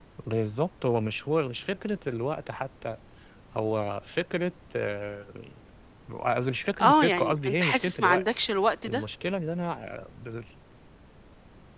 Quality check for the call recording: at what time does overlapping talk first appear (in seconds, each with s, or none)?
6.8 s